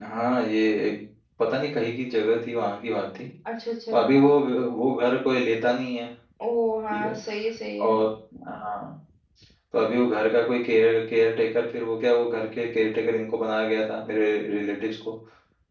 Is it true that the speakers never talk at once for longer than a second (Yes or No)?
Yes